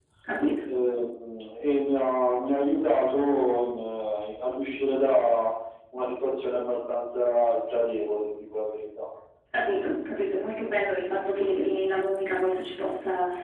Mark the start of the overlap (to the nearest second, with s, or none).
none